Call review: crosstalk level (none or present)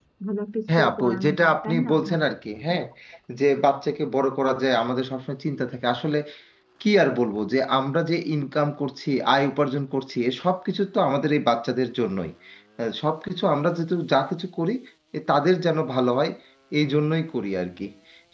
present